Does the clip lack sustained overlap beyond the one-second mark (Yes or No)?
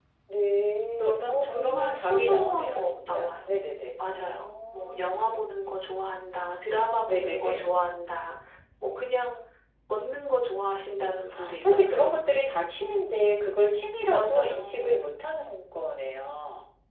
No